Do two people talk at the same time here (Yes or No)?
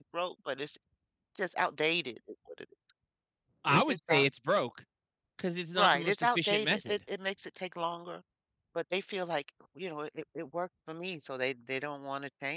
Yes